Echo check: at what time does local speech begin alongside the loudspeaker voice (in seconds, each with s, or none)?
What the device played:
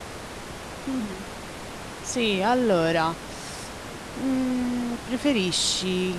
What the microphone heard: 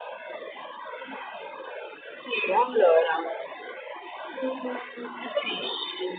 none